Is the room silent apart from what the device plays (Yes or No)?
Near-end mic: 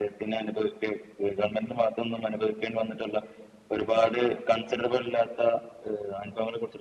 No